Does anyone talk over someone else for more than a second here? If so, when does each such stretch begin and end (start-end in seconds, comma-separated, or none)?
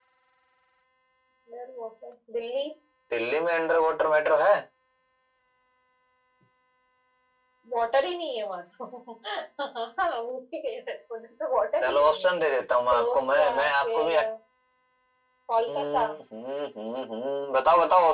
12.9-14.2